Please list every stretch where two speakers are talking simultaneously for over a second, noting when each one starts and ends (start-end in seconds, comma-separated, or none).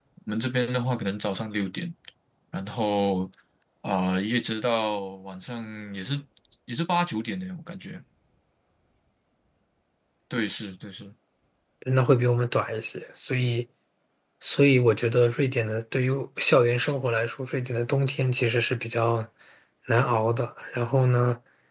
none